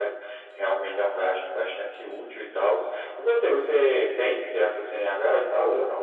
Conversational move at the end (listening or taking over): taking over